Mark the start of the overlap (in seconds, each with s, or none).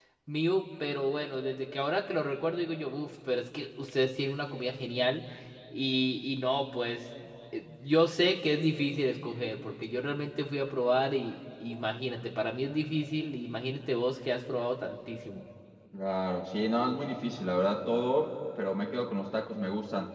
none